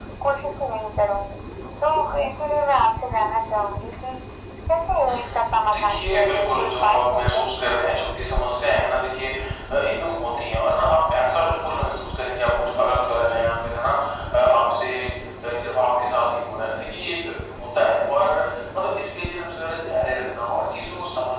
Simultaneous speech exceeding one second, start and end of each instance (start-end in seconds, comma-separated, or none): 4.9-7.4